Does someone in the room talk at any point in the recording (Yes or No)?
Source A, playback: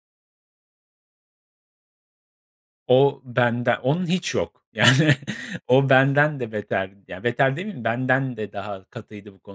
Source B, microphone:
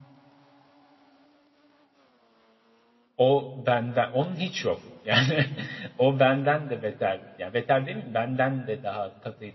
No